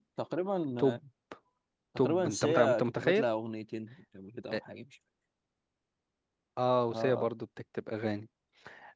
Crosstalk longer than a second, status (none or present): present